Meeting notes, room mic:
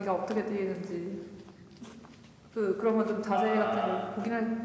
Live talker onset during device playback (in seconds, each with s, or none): 3.3 s